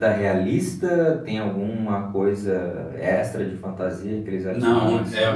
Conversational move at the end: taking over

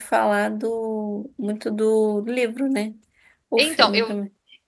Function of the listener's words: taking over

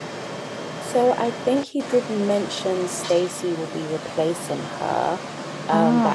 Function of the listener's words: listening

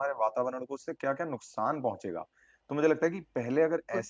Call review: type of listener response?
listening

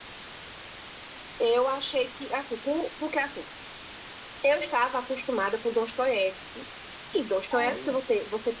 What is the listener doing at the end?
listening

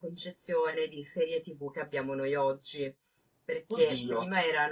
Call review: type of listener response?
listening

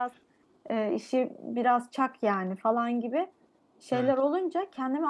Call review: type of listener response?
listening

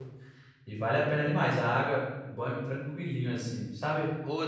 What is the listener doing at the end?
taking over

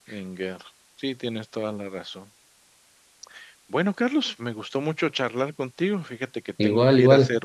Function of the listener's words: listening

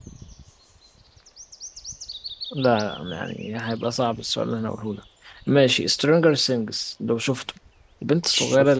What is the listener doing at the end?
listening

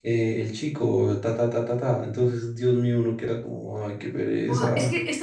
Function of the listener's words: taking over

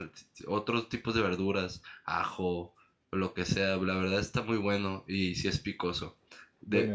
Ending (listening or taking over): listening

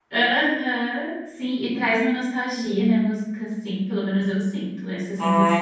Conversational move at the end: taking over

